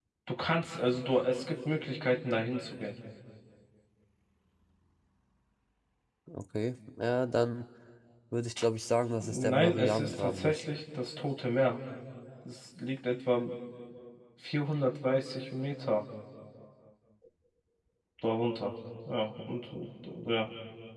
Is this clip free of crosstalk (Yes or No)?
No